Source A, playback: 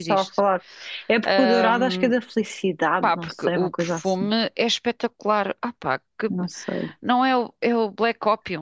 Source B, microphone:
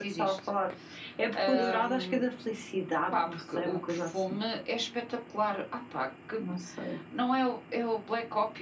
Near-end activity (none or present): none